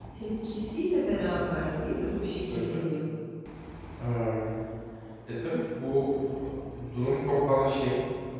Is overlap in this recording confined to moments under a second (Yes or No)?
Yes